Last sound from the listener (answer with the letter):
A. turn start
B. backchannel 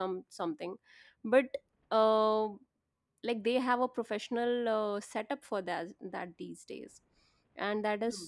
B